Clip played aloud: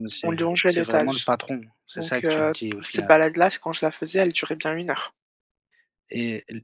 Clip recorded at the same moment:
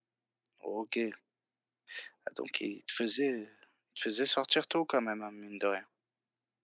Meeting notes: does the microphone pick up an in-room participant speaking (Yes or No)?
Yes